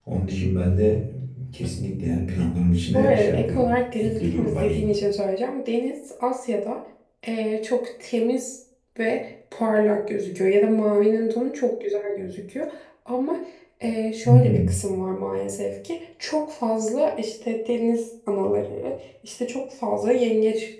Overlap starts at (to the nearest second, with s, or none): 3 s